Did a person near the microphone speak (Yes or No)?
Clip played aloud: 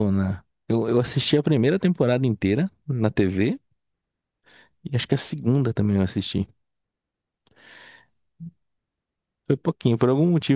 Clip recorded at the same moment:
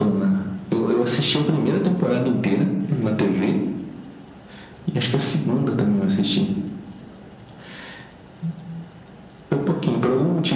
No